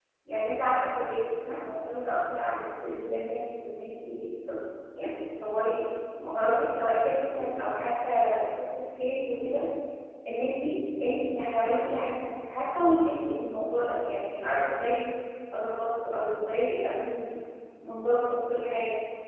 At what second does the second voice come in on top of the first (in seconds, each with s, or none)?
none